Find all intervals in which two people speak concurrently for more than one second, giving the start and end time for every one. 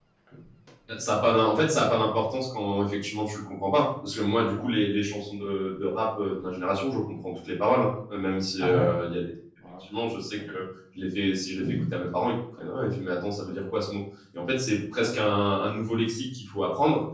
none

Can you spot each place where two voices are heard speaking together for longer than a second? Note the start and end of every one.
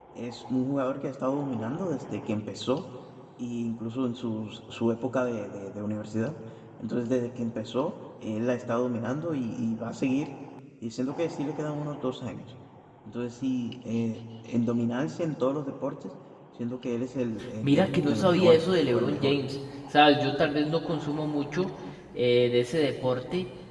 17.6-19.3

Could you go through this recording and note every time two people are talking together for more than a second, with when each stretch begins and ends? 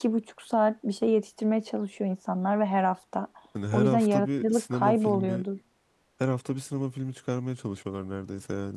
3.7-5.4

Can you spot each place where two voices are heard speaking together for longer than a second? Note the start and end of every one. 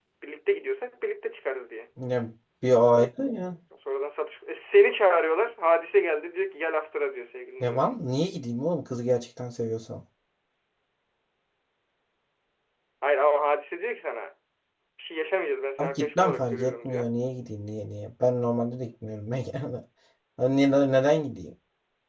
15.8-17.1

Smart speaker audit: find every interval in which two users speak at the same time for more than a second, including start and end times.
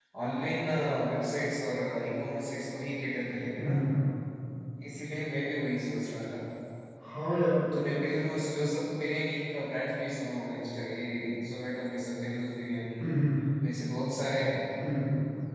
none

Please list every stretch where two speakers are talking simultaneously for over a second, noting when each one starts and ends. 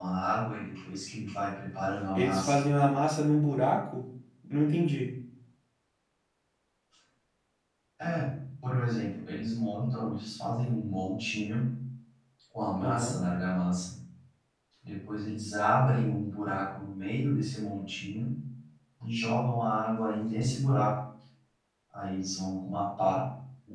none

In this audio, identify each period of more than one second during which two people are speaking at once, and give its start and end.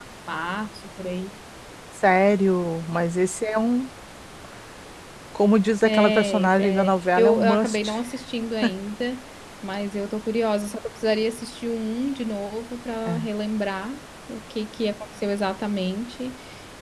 5.8-7.9

